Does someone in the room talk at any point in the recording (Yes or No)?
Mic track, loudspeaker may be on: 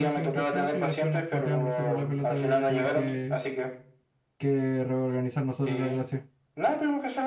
Yes